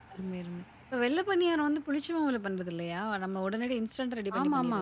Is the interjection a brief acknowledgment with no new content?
No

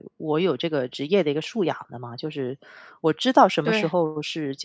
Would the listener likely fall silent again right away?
Yes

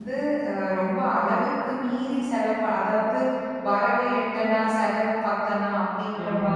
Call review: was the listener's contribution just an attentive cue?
Yes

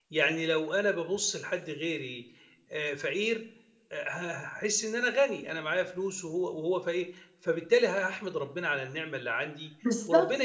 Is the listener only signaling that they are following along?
Yes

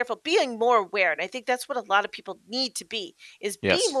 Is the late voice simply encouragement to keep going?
Yes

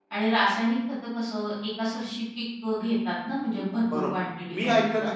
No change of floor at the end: No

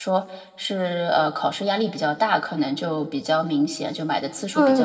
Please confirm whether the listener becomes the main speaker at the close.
Yes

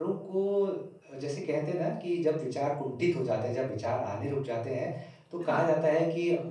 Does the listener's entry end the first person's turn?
No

